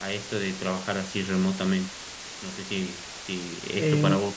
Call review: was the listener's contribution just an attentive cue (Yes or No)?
Yes